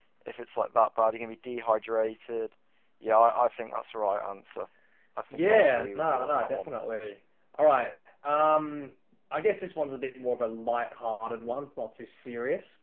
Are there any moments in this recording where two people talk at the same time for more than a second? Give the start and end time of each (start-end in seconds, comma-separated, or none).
5.3-6.7